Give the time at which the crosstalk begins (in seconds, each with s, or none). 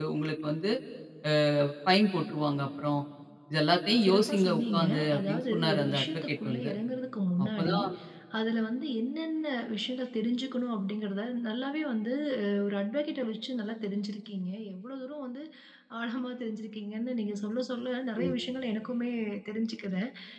4.0 s